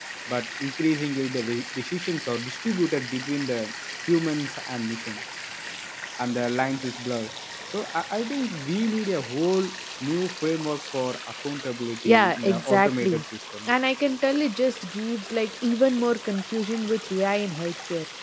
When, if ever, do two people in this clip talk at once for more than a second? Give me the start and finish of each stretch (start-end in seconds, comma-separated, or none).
12.0-13.2